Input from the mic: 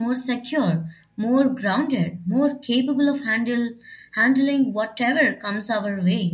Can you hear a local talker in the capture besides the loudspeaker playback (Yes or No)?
Yes